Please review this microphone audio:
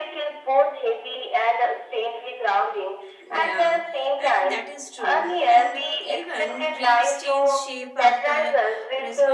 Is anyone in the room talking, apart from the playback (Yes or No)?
Yes